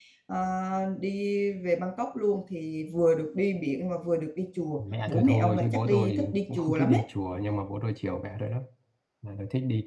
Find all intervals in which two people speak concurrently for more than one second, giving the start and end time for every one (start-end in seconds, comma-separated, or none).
5.1-7.0